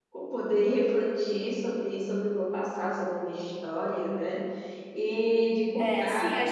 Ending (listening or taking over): taking over